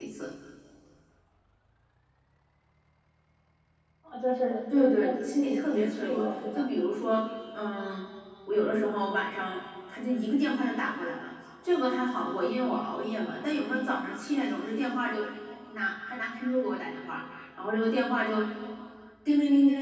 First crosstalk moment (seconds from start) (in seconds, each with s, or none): 4.7 s